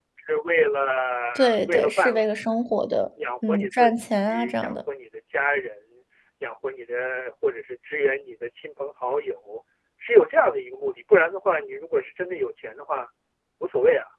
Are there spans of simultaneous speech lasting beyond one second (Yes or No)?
Yes